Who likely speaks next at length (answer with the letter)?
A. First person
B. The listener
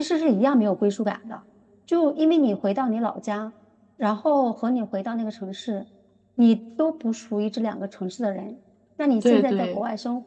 A